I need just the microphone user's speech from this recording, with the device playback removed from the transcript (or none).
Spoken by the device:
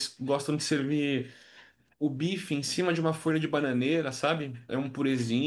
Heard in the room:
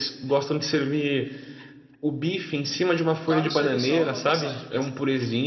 O caro seria só a passagem mesmo, né?